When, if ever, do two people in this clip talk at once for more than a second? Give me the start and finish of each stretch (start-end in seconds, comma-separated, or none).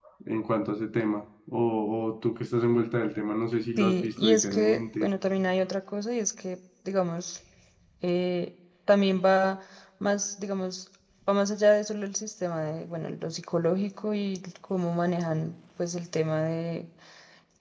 3.8-5.1